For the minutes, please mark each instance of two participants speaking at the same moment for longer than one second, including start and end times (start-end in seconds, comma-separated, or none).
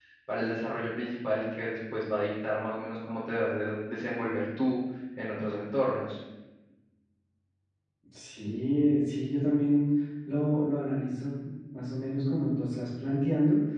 none